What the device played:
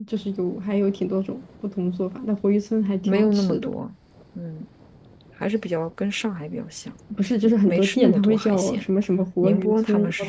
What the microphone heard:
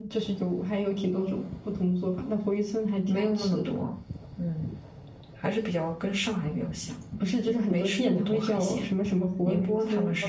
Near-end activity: none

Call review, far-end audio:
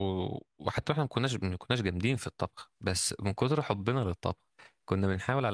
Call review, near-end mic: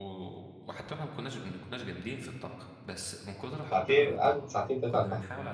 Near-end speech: present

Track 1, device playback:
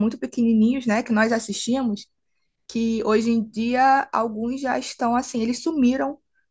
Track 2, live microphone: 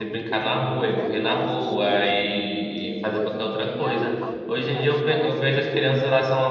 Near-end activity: present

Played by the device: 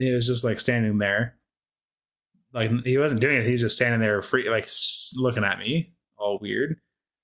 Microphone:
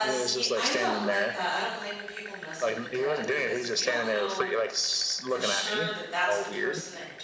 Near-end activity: present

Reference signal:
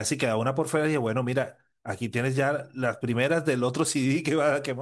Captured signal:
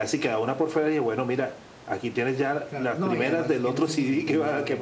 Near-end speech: present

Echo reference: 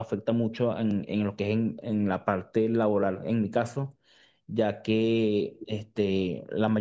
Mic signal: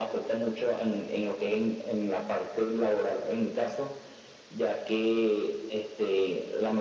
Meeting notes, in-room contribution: none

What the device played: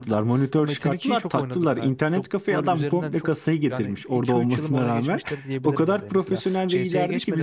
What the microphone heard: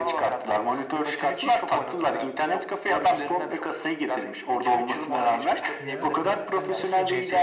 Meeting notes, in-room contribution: present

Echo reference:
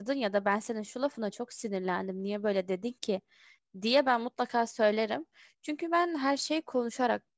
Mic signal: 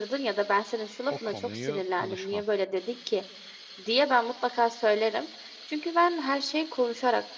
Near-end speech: present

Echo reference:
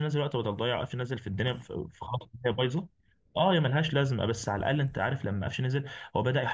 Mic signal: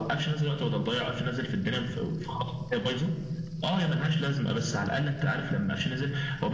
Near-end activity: none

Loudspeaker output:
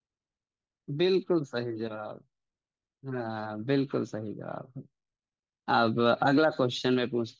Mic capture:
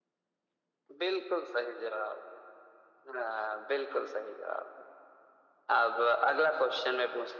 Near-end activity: none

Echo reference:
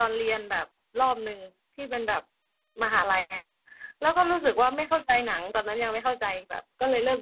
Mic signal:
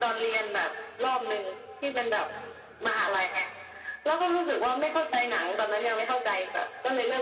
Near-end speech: none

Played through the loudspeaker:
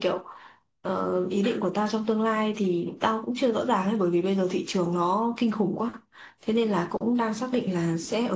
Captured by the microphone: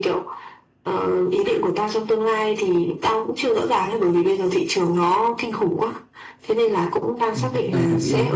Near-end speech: present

